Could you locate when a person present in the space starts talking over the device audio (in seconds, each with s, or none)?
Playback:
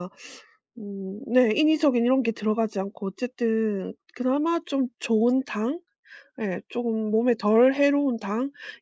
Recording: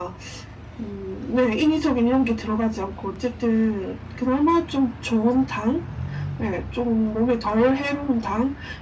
none